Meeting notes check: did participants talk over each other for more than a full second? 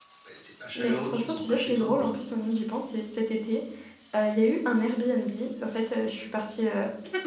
Yes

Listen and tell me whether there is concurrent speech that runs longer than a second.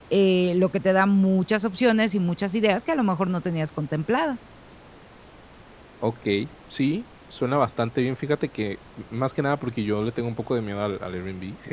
No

